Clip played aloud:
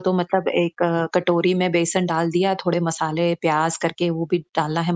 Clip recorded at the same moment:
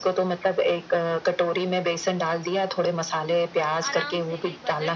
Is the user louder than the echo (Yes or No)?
No